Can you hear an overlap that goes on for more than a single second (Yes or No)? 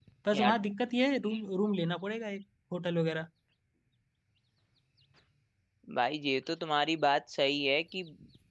No